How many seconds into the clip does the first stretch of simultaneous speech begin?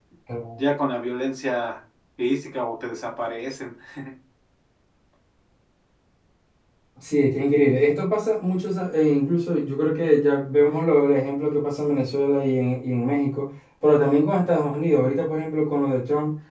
none

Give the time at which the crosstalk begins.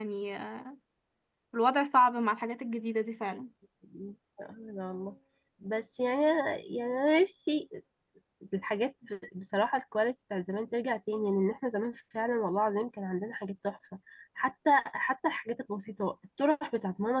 none

